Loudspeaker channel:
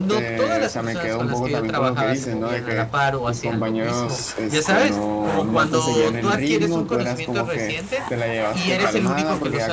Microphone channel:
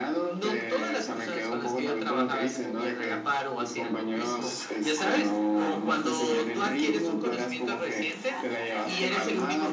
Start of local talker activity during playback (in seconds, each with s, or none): none